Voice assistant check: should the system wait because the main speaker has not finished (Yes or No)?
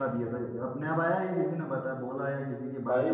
No